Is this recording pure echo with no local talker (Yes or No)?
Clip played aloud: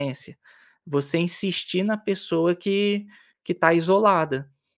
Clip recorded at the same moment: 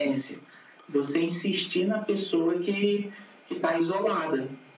Yes